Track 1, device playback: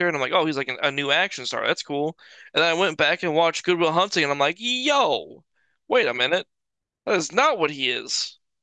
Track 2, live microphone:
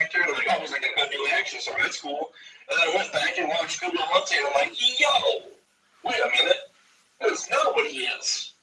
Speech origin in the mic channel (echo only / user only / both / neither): echo only